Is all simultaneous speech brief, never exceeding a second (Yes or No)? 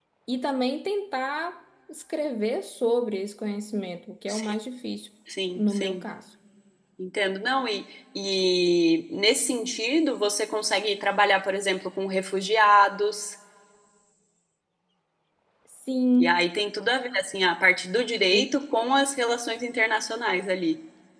Yes